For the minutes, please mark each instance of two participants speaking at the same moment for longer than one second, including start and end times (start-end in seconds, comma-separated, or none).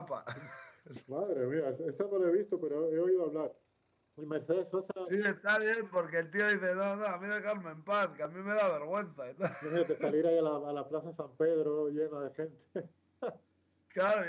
none